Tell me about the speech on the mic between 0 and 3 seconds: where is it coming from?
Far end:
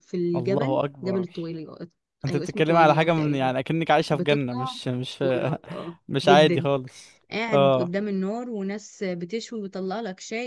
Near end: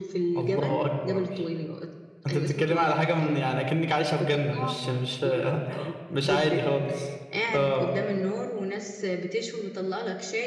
echo only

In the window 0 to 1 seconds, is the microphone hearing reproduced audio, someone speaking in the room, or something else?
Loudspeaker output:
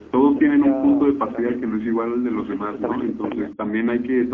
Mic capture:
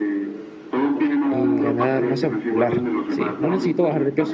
echo only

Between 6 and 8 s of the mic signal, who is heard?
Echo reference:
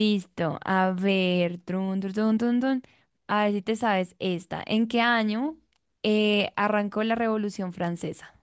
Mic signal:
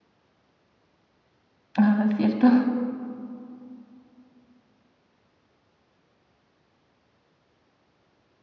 neither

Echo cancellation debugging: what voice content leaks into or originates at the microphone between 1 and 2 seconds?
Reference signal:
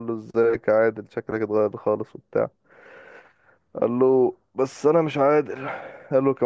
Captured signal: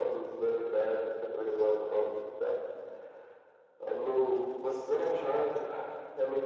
echo only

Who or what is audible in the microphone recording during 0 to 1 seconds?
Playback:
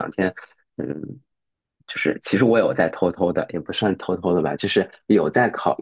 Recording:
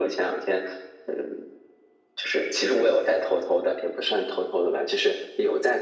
echo only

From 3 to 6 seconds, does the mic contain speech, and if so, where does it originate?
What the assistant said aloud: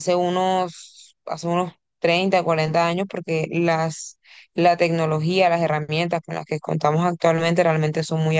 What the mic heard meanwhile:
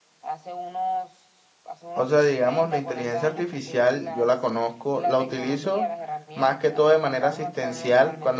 both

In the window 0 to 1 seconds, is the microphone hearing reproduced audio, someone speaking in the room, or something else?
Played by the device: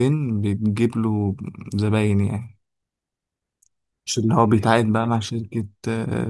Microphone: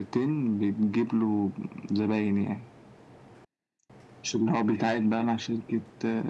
echo only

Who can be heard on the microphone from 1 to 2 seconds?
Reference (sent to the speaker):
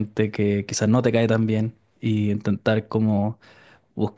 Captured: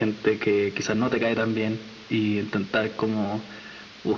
echo only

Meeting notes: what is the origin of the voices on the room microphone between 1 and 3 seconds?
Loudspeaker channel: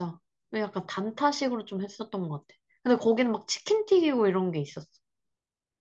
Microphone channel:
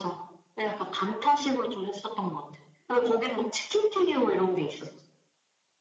echo only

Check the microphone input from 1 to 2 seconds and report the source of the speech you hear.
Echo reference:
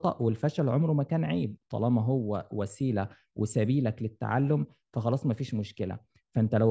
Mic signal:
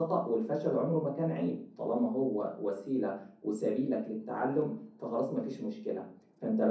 echo only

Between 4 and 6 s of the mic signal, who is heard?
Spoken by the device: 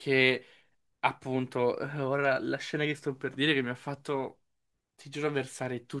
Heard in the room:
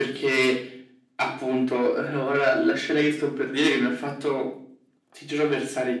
echo only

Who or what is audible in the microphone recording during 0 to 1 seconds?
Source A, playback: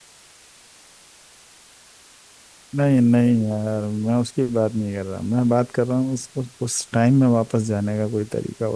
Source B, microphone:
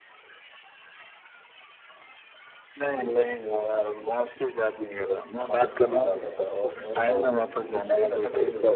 neither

